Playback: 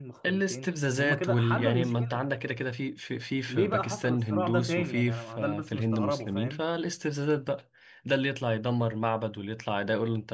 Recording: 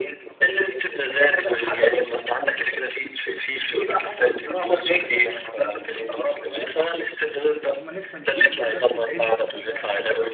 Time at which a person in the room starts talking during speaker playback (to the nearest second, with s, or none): 8 s